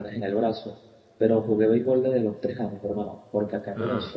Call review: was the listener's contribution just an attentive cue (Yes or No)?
Yes